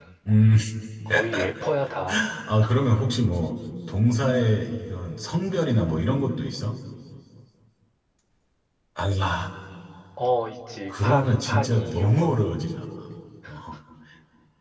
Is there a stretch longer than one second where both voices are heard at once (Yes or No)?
Yes